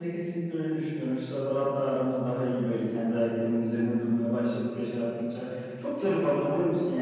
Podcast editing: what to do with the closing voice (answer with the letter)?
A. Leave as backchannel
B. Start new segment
A